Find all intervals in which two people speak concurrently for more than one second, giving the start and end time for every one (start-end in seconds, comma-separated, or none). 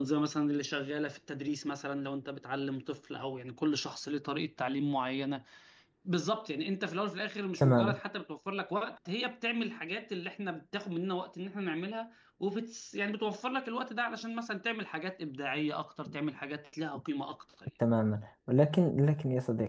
none